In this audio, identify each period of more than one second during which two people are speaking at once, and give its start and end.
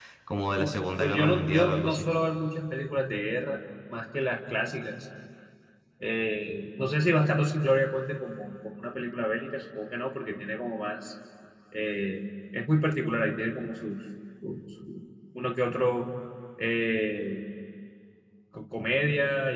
0.5-2.1

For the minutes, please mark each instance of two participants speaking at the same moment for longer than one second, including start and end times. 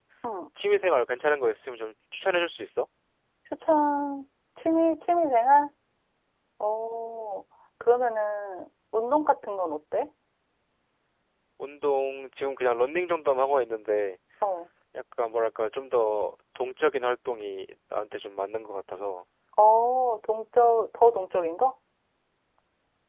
none

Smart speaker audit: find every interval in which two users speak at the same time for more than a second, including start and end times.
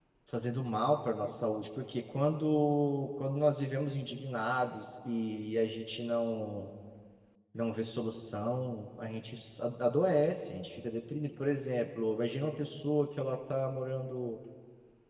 none

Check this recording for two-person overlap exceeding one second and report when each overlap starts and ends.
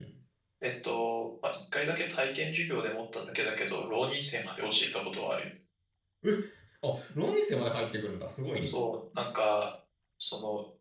none

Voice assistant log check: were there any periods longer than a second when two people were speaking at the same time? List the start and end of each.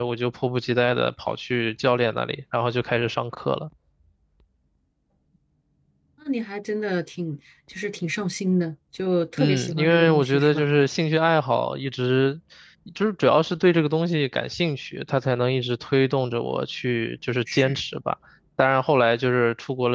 9.4-10.7

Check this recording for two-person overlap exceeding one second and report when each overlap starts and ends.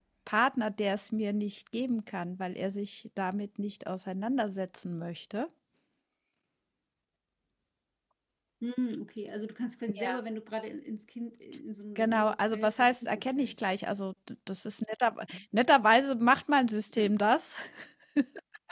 12.0-13.6

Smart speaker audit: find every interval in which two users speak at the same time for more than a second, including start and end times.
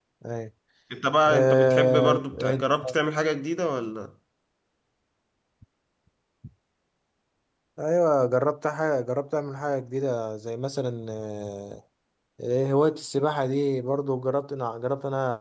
1.3-2.6

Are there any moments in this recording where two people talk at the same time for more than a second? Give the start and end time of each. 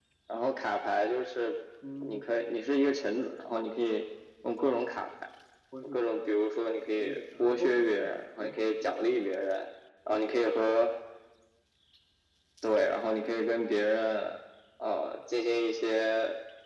6.9-9.1

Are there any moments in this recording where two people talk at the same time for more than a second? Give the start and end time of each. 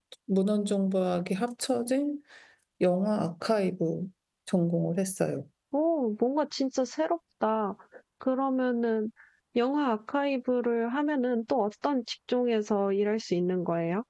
none

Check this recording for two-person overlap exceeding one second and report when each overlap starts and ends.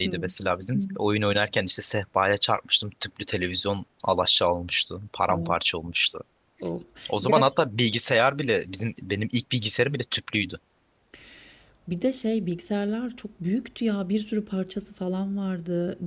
none

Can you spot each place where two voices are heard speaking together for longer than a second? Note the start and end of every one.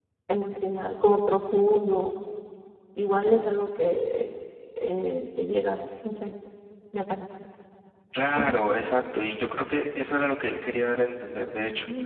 none

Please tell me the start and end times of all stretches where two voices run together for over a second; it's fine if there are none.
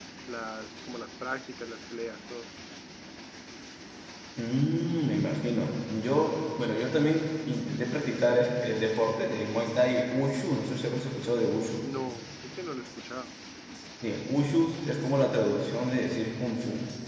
none

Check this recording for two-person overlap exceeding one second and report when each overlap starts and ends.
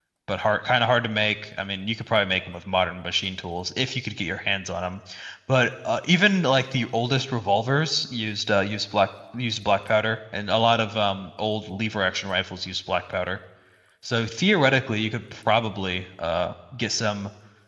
none

